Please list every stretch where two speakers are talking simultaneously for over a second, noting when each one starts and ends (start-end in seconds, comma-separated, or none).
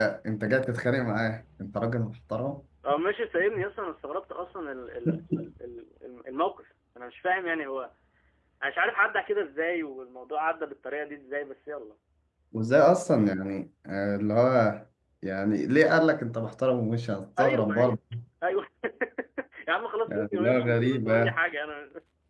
20.1-21.4